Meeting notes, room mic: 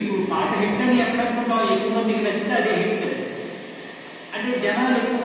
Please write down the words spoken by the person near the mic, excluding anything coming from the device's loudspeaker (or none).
none